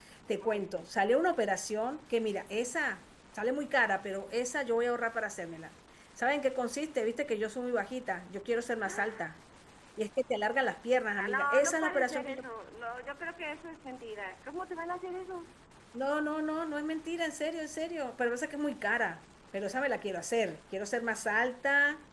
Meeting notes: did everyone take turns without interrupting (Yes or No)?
No